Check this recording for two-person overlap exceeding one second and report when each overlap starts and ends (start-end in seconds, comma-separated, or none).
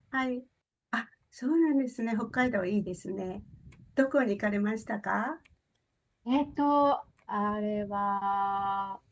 none